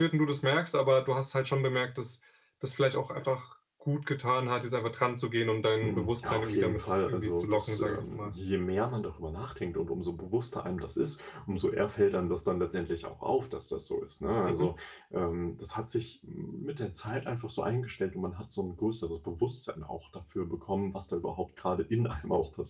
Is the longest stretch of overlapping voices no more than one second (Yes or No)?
No